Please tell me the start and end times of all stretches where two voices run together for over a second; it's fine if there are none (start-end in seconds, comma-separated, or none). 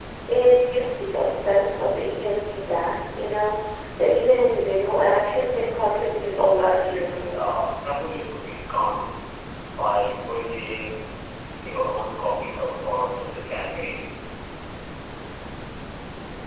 6.3-7.6